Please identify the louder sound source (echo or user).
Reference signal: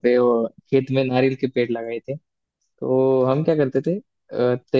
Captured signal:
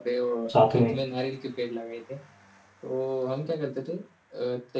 user